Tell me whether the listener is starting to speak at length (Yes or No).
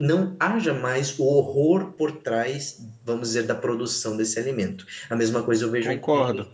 No